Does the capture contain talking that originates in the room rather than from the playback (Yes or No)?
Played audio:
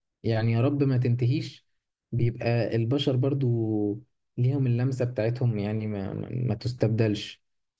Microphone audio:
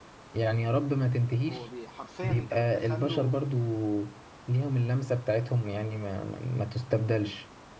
Yes